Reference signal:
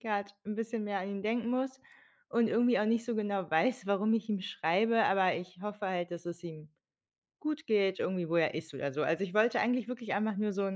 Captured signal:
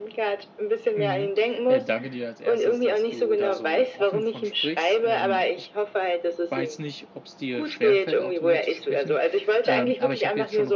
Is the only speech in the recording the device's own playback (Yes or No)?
No